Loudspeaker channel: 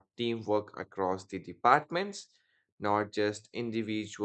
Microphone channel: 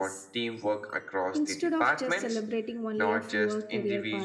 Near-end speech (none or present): present